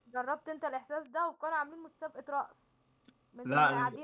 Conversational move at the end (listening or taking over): listening